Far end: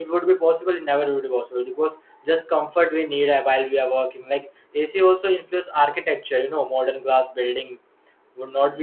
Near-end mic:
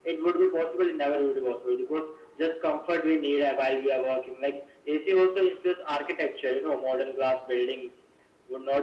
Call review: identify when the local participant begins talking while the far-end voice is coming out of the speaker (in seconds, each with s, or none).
none